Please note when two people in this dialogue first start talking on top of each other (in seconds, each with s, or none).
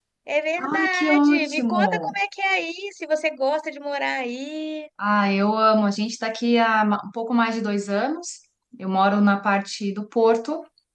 0.7 s